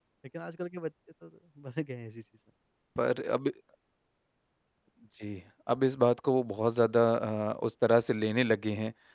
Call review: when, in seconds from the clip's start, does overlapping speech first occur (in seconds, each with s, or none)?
none